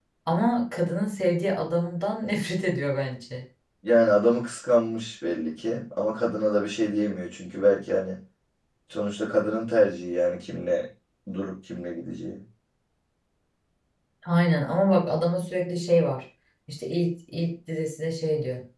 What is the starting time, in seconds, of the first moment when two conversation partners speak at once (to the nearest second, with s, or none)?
none